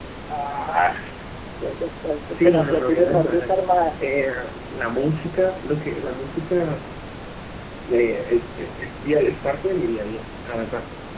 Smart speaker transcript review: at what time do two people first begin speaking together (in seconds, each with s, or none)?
2.3 s